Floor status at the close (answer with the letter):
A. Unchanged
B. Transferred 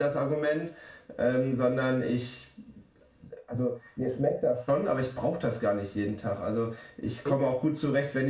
A